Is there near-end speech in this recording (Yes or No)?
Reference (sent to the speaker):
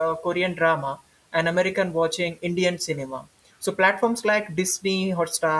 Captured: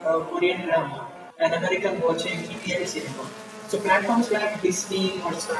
No